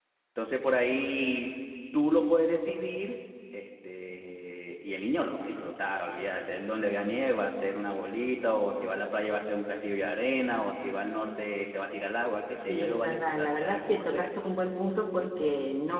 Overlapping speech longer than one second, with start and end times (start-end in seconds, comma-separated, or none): 12.7-14.3